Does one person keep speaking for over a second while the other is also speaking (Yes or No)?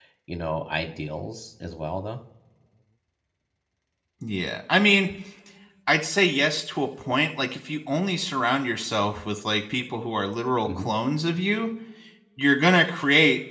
No